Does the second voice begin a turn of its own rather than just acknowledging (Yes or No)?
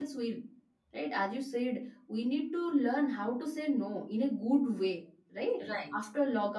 No